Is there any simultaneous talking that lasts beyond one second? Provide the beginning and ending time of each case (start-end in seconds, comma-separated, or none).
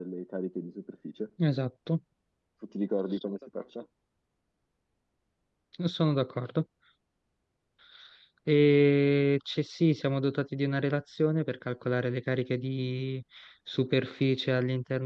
none